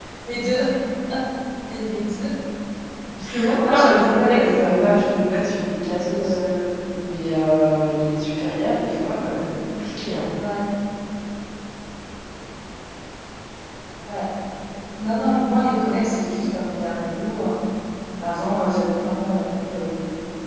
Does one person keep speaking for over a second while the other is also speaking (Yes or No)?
Yes